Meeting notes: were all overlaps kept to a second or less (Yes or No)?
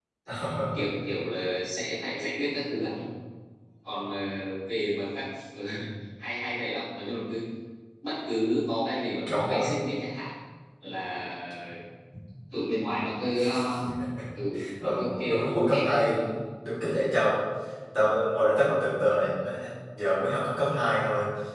No